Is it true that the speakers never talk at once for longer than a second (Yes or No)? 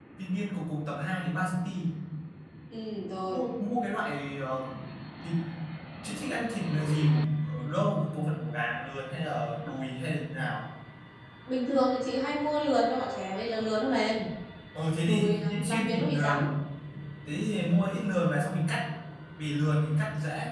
No